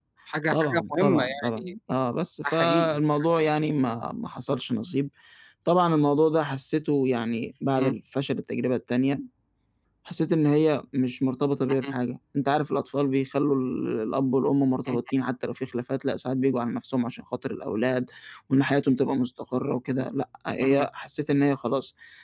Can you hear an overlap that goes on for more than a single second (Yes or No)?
Yes